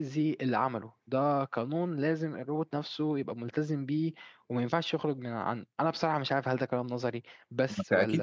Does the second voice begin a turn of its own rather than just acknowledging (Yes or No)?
Yes